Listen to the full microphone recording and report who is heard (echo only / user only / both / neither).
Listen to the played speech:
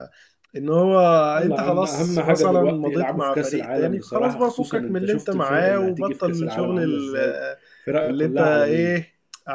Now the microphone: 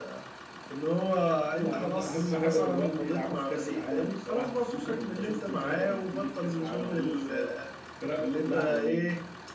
echo only